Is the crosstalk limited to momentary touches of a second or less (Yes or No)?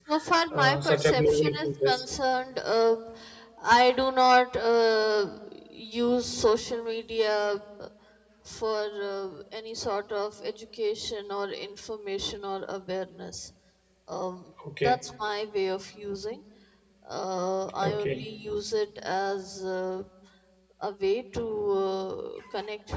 No